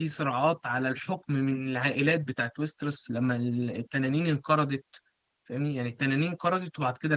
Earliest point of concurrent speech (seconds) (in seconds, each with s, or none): none